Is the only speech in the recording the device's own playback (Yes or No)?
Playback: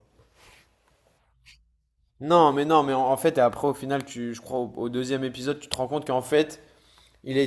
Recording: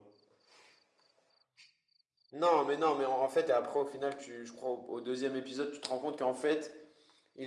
Yes